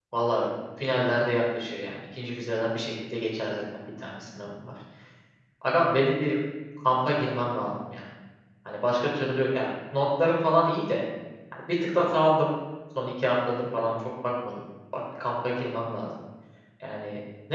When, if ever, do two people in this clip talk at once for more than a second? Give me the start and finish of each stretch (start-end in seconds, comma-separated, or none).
none